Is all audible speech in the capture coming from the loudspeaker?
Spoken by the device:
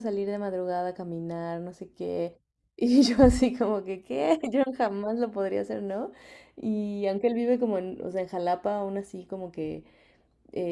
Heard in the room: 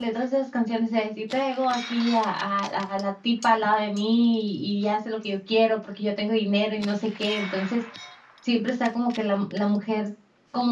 No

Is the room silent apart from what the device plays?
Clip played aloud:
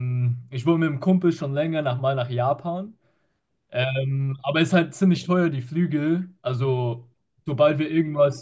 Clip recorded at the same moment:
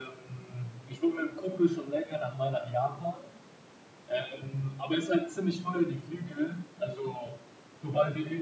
Yes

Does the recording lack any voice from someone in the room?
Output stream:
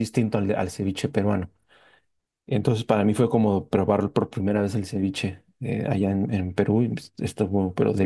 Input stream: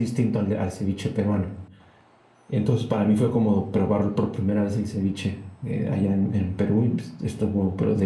Yes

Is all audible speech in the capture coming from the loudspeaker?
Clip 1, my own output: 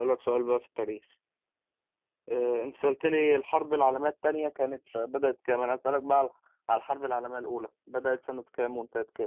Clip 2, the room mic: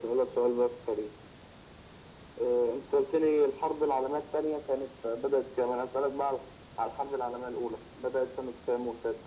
Yes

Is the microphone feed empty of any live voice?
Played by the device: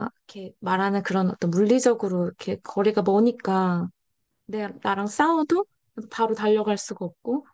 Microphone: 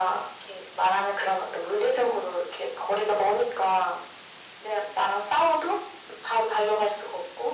Yes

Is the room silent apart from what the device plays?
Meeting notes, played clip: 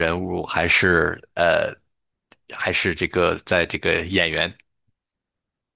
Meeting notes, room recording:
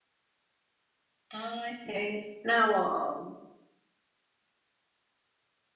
No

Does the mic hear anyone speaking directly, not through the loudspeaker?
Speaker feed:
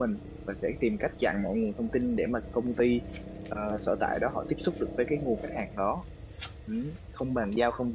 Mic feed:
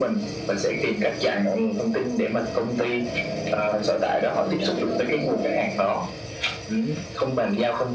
Yes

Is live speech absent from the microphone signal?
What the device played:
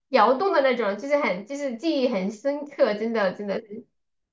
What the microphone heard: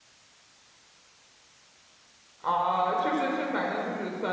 No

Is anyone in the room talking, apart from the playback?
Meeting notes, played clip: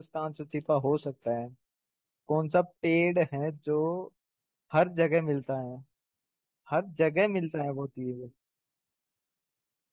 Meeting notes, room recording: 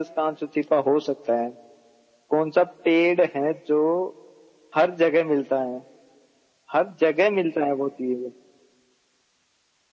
No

